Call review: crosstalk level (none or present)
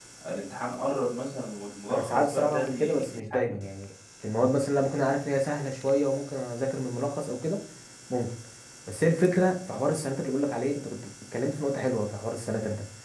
present